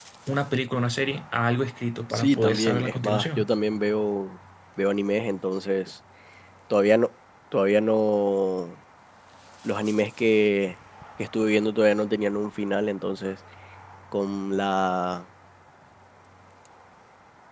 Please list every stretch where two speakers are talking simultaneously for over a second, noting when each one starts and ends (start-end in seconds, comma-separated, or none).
2.1-3.5